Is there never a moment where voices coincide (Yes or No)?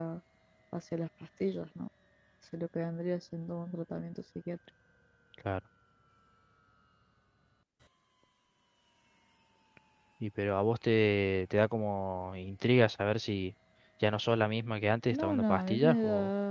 No